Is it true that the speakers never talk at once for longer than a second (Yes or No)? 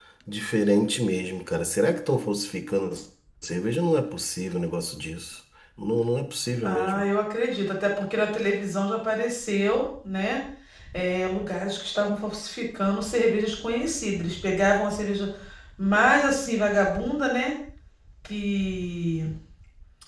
Yes